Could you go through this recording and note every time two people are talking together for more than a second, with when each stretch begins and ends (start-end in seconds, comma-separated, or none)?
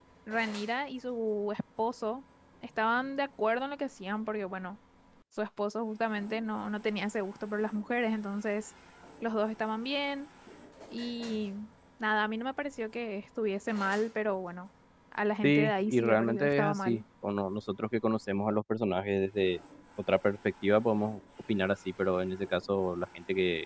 15.4-17.0